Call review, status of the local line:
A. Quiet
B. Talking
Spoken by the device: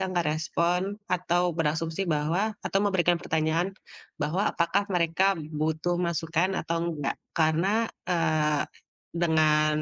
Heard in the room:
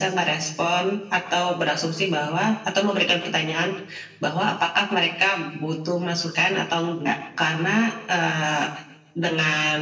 A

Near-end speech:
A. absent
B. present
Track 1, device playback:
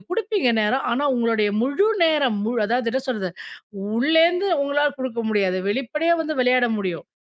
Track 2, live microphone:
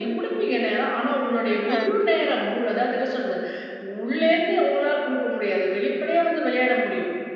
B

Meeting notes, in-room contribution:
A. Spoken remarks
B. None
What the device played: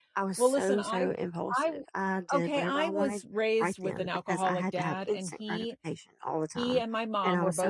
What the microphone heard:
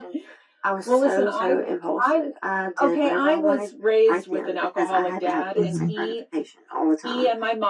A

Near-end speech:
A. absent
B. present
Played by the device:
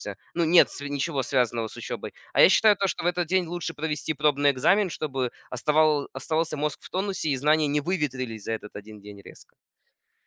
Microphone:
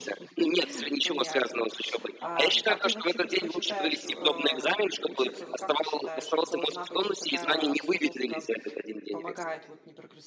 B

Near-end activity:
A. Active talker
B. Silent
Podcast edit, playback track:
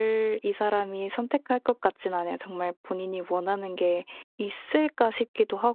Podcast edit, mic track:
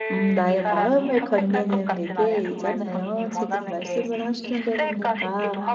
A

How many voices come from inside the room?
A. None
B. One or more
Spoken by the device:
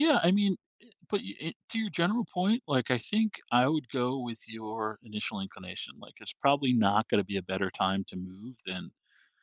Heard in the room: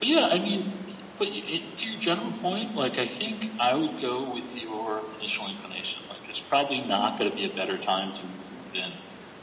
A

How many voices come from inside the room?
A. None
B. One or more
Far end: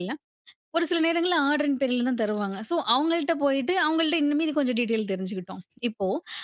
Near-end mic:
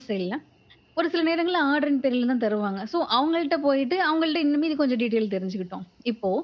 A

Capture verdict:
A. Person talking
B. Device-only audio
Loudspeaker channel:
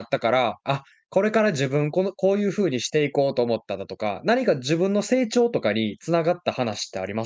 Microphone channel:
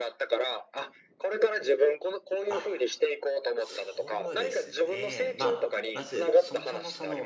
A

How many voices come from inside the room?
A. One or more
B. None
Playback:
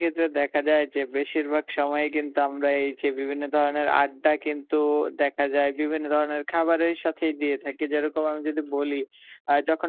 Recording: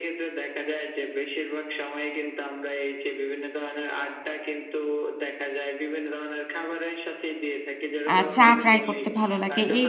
A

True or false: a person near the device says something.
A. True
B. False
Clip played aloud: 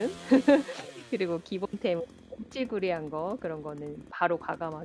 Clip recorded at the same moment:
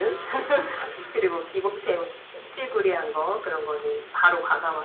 B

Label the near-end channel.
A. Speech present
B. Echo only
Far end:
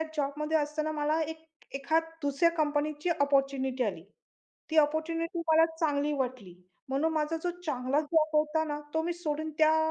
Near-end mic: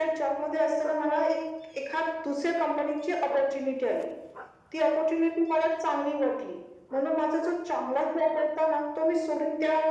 B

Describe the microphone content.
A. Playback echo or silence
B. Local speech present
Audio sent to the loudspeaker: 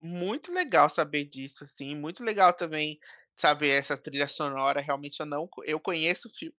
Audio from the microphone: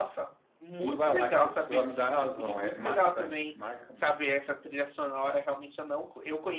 B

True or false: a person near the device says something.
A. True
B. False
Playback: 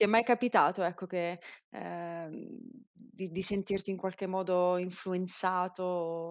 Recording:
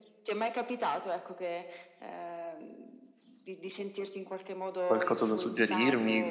A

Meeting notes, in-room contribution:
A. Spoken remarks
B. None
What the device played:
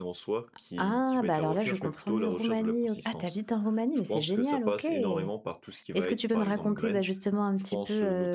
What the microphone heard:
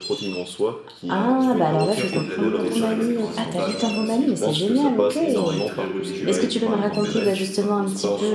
A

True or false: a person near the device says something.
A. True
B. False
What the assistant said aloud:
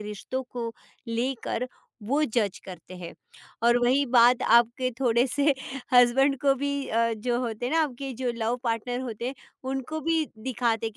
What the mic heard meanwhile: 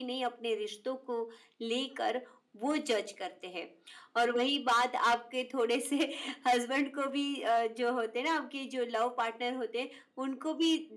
B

